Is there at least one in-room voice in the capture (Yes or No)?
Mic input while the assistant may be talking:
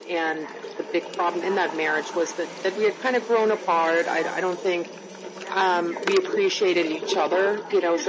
Yes